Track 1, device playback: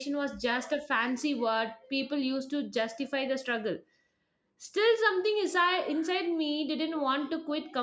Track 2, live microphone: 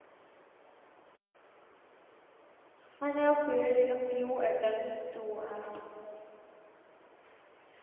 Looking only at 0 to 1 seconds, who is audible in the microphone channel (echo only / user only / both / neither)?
neither